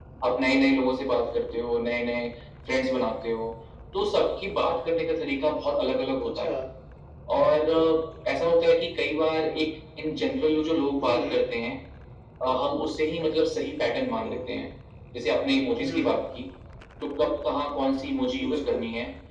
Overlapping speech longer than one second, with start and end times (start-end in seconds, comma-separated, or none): none